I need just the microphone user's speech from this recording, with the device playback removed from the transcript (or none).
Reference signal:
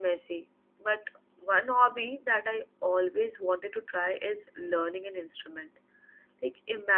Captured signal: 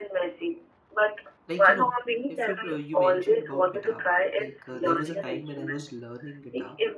Like you know, if you uh, you mentioned about guitar, like uh, there was a time when I was learning guitar.